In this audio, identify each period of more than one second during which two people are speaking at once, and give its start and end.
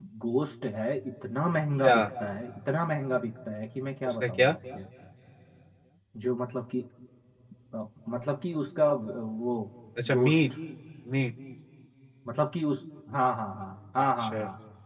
none

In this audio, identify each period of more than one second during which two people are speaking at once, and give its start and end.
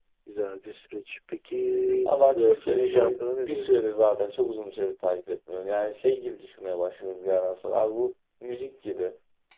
2.0-3.9

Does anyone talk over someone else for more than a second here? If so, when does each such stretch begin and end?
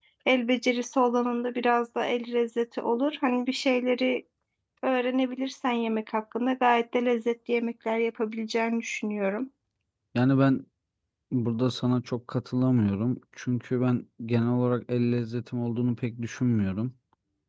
none

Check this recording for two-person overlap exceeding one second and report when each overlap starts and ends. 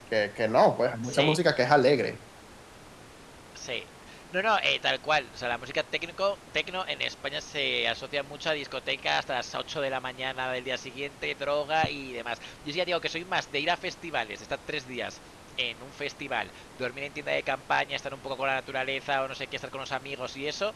none

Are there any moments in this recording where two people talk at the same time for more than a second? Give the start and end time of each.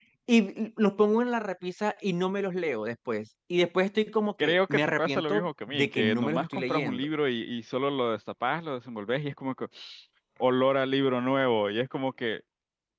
4.4-7.1

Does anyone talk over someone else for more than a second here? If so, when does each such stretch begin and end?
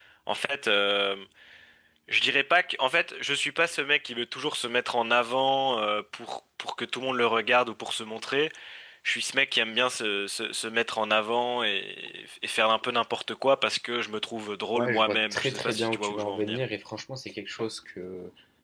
14.8-16.6

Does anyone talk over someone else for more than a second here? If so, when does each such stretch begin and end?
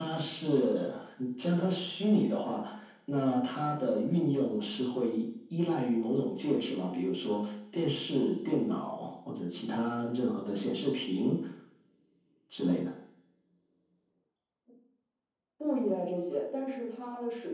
none

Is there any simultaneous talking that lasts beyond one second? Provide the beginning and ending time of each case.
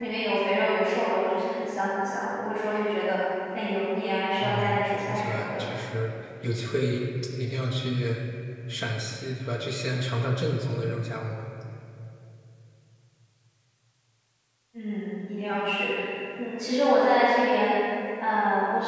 4.4-5.6

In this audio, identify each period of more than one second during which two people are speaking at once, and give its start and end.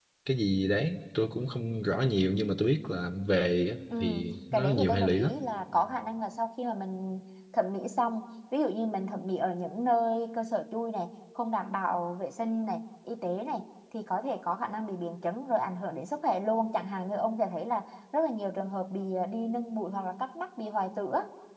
4.0-5.3

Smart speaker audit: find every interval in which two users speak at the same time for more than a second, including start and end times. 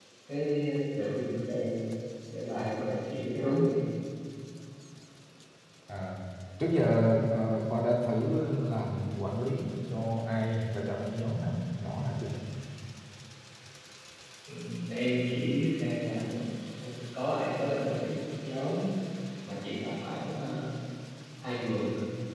none

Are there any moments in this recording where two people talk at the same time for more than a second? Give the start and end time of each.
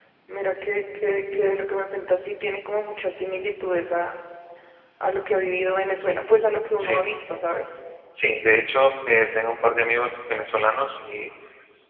none

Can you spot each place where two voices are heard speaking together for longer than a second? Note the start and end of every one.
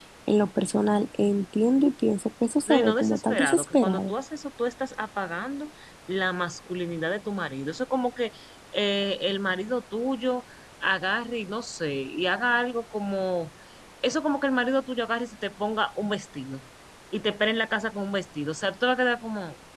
2.7-4.1

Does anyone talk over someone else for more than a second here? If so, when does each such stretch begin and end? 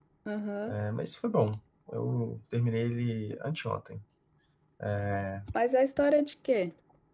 none

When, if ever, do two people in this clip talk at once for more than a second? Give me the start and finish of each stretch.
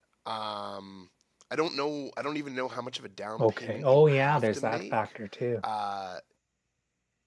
3.4-5.1

